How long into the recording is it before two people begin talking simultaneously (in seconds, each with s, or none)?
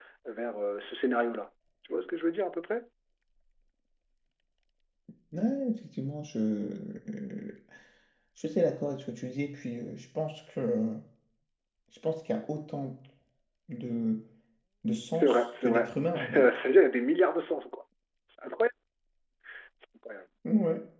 15.1 s